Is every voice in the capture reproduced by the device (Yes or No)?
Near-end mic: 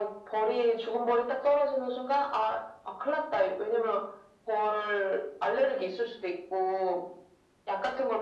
Yes